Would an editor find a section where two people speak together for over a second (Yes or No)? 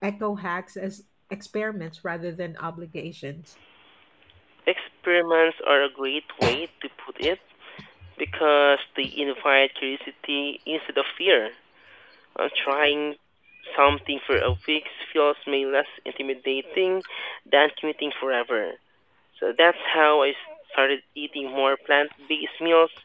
No